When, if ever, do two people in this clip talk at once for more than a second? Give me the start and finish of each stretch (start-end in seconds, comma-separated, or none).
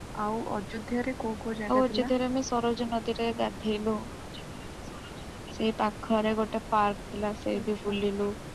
none